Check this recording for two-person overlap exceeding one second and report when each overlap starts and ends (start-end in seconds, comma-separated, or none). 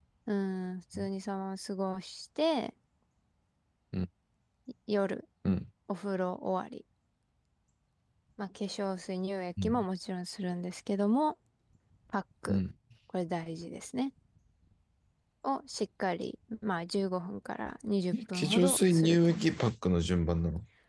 18.1-19.4